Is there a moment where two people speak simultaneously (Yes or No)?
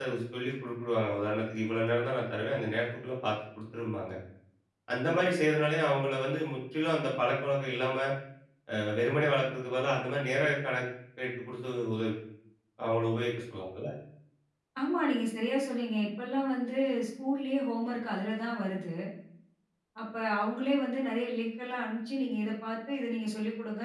No